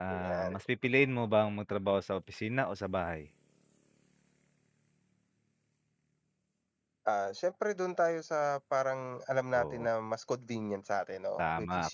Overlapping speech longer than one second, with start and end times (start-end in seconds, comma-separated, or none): none